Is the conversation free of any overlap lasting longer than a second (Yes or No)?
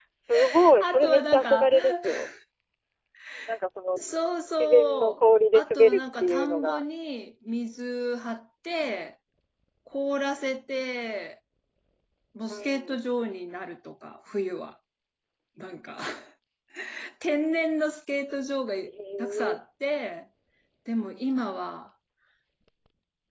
No